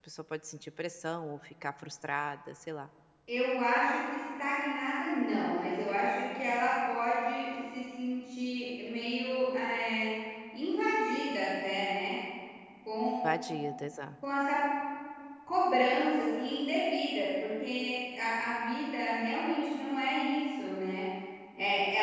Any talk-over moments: No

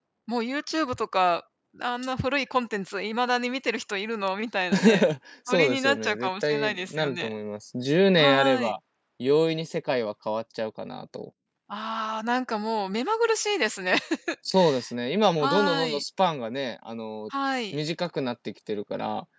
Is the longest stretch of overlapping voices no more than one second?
No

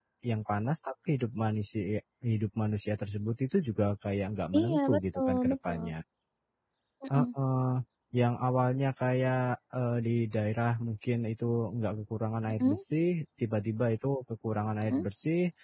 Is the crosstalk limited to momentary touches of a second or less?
No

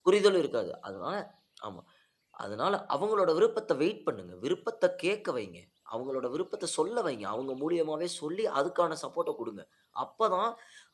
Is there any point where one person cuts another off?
No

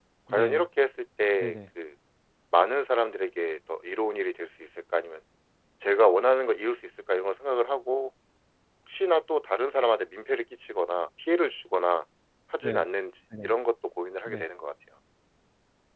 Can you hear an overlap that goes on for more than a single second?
No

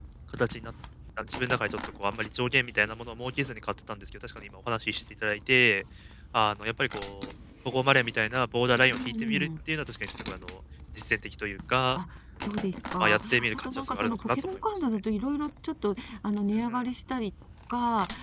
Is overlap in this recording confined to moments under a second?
No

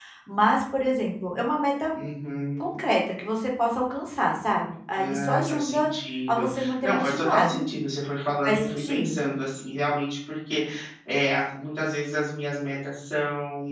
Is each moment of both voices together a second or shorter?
No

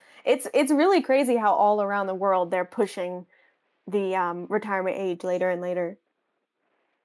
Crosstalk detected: No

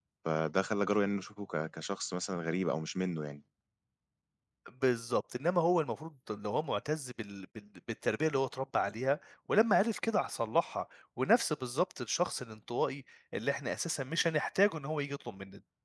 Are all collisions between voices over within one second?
Yes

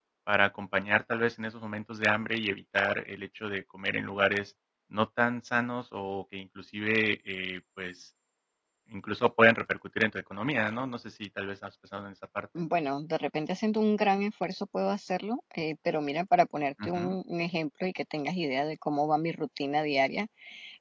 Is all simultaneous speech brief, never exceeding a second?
Yes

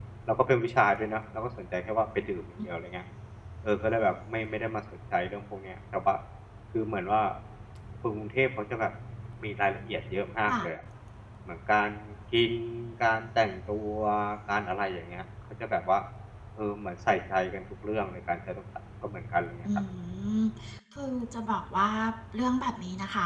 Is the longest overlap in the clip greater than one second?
No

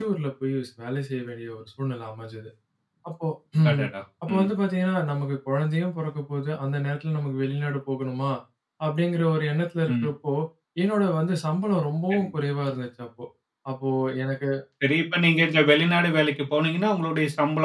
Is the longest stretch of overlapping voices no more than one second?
Yes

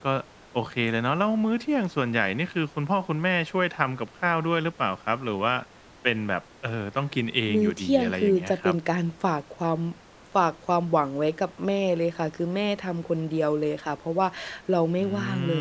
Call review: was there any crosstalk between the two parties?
Yes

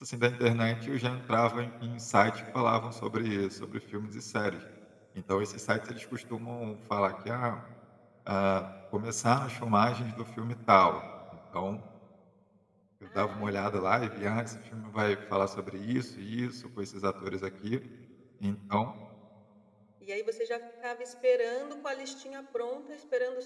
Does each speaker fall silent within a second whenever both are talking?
No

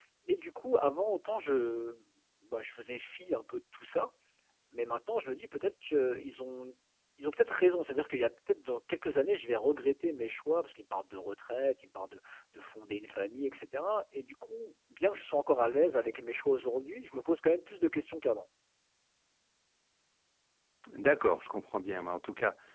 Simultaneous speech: No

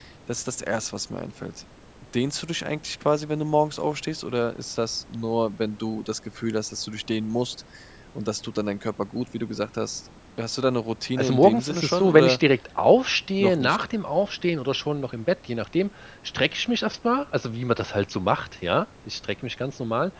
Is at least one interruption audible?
Yes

